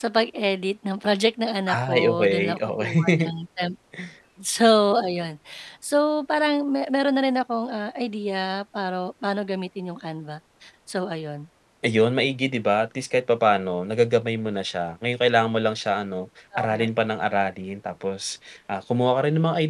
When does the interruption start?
1.7 s

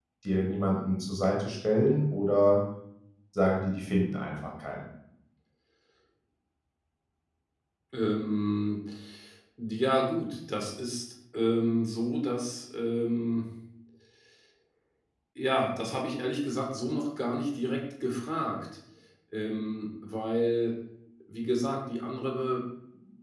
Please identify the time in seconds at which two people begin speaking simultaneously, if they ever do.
none

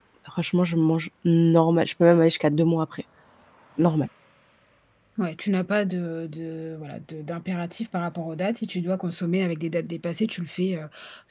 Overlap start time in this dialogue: none

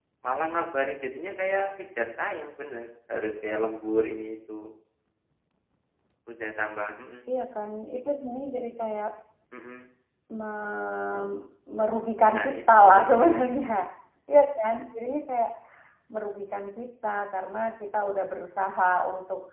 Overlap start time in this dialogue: 12.2 s

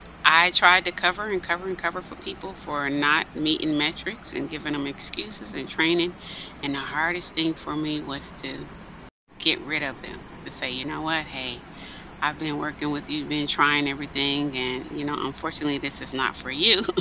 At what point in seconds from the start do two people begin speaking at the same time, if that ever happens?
none

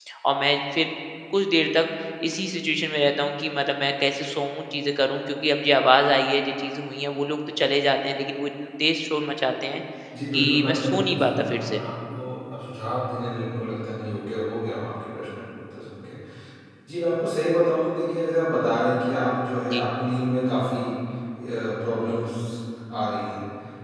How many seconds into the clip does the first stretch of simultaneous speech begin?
10.3 s

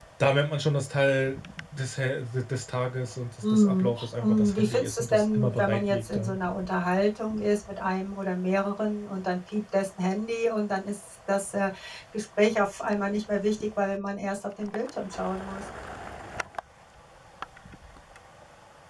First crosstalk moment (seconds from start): 3.4 s

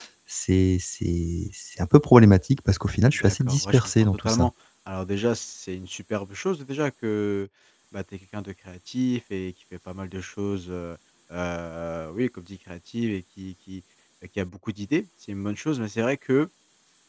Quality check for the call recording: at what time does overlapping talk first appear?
3.1 s

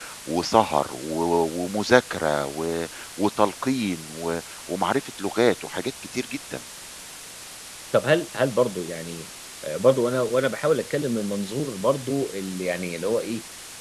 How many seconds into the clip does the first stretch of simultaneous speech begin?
none

